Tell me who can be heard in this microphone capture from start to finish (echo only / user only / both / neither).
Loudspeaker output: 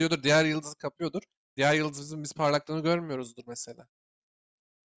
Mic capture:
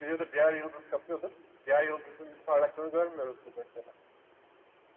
echo only